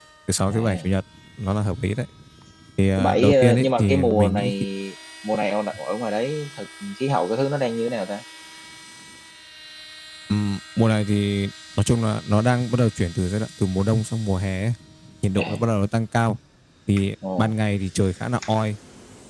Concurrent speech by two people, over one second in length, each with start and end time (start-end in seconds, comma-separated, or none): 3.0-4.5